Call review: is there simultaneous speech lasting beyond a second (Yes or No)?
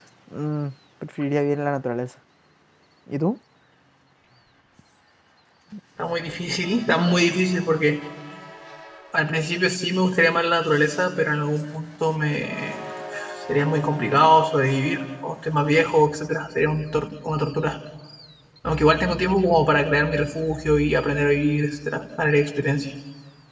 No